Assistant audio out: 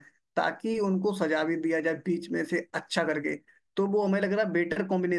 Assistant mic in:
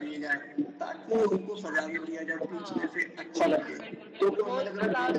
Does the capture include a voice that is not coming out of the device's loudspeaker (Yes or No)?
Yes